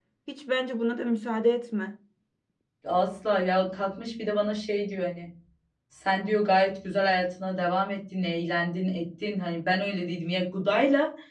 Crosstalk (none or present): none